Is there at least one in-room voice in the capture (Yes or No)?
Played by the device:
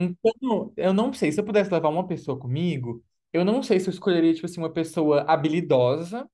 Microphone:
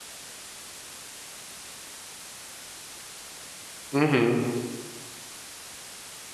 Yes